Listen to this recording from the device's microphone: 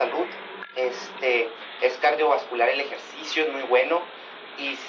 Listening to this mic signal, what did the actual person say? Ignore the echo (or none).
none